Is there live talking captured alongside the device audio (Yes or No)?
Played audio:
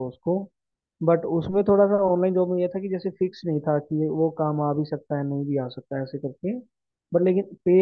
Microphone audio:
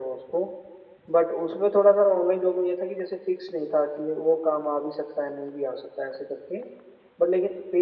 No